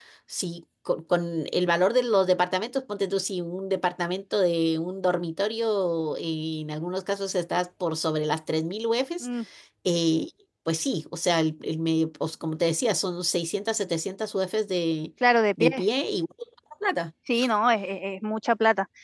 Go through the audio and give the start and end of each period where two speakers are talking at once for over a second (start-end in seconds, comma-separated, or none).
none